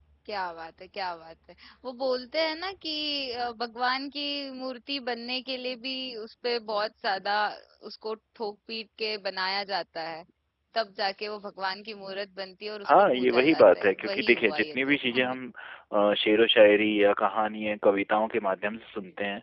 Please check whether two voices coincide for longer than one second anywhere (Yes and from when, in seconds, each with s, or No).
Yes, from 12.8 s